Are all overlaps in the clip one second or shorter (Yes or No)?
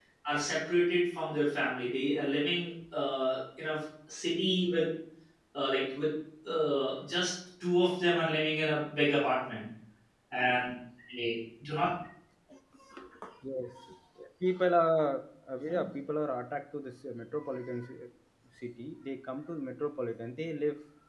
Yes